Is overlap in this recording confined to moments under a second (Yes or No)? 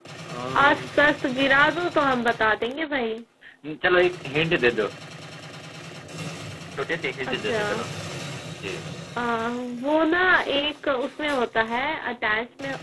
Yes